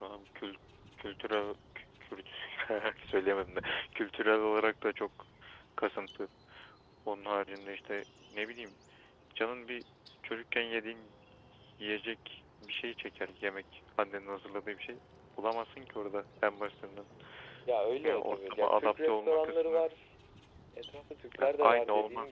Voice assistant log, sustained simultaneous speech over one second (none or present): present